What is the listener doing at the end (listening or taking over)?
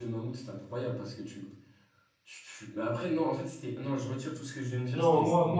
taking over